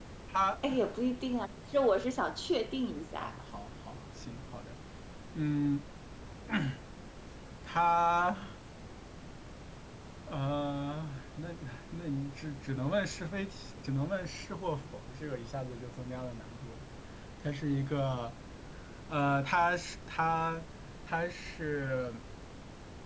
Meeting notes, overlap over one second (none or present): none